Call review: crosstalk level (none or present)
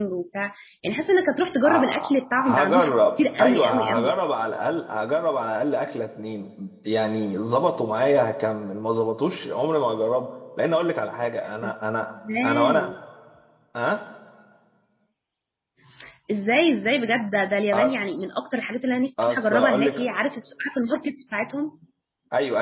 present